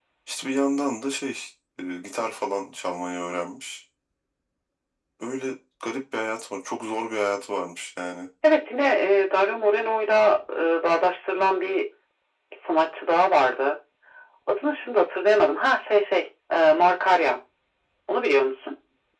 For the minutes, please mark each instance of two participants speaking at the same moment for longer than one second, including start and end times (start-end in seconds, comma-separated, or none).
none